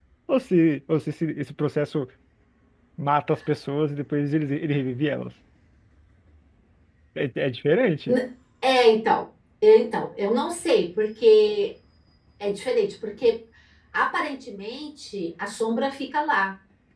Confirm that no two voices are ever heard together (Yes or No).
Yes